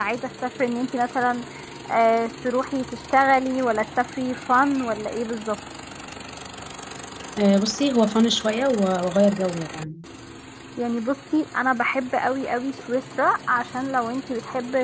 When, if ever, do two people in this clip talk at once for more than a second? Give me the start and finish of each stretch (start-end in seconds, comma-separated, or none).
none